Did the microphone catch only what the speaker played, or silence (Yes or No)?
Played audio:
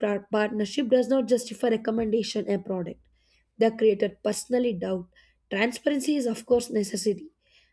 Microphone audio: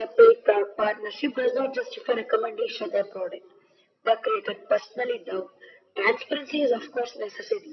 Yes